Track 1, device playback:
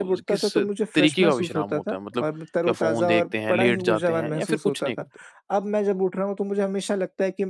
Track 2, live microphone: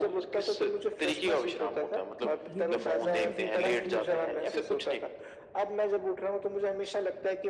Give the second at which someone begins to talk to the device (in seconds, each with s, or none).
2.2 s